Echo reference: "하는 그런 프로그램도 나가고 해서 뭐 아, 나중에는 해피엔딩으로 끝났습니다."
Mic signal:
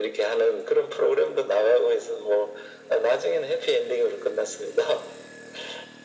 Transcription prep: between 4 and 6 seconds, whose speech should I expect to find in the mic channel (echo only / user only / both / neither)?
echo only